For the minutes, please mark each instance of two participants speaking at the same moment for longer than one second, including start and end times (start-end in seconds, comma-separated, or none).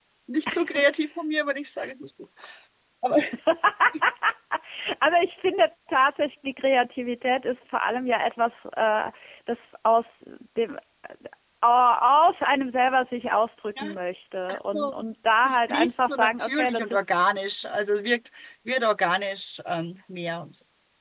15.4-17.0